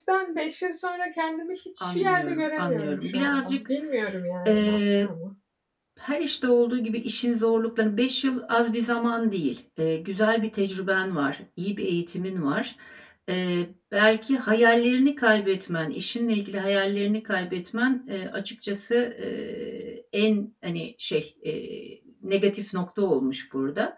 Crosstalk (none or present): present